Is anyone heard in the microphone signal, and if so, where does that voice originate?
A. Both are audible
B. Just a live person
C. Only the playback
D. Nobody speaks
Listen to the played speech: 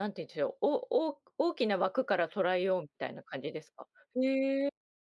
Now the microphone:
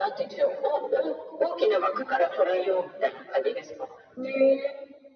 C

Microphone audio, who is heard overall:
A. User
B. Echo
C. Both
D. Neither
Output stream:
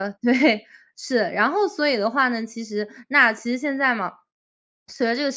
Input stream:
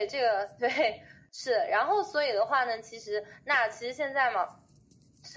B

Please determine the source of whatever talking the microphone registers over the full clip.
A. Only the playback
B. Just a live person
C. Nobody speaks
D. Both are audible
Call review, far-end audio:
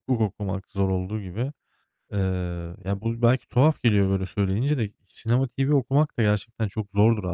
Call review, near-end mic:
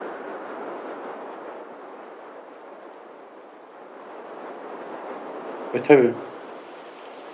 B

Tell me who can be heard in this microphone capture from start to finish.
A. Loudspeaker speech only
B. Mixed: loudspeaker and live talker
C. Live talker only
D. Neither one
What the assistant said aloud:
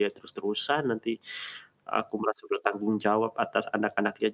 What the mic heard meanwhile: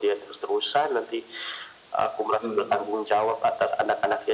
B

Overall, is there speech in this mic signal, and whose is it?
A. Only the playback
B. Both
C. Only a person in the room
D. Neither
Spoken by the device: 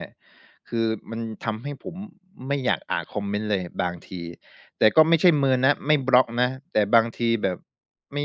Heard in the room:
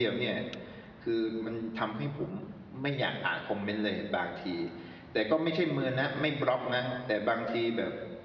A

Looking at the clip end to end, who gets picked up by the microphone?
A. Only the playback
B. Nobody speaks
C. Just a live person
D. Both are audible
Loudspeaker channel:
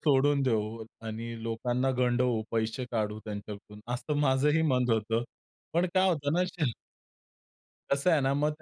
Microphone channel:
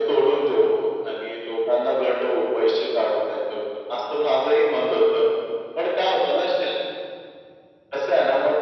A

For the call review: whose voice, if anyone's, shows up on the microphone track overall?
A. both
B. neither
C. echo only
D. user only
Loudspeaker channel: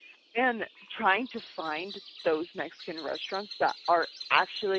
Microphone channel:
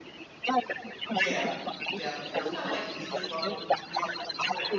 A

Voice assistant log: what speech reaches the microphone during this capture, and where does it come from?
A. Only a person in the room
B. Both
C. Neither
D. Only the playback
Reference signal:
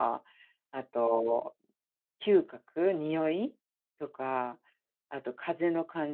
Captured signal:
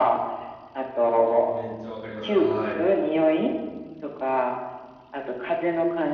B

